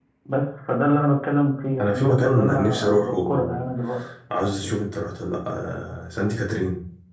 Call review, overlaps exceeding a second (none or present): present